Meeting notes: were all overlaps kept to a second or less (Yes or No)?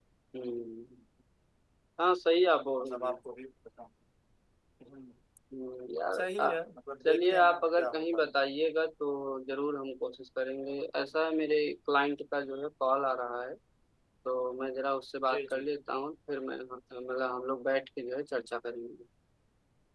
No